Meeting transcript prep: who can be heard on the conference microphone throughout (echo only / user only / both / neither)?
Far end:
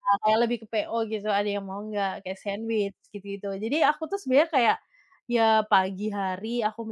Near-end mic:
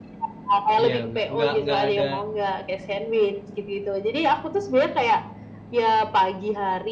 both